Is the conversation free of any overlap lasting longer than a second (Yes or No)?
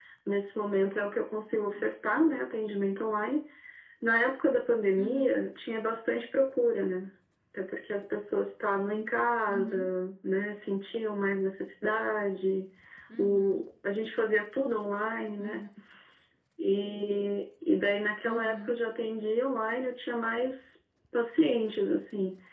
Yes